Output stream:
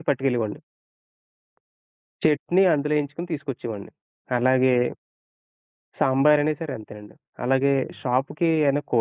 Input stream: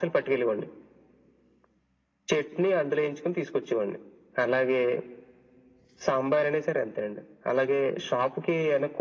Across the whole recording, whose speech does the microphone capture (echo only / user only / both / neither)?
echo only